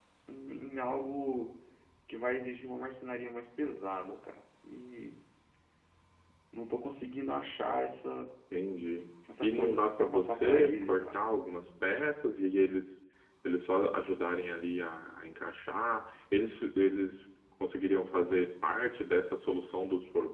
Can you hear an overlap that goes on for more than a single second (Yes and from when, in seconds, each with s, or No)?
Yes, from 9.3 s